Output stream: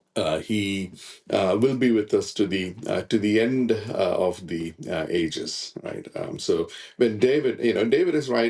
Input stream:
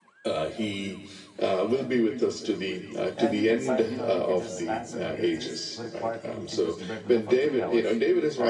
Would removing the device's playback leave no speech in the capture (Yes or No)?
No